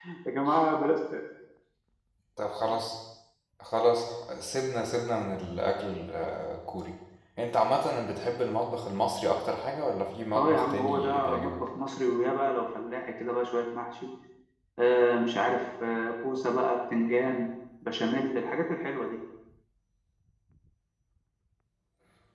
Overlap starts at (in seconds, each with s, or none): 10.3 s